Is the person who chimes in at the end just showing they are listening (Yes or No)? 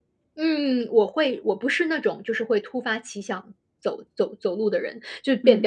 Yes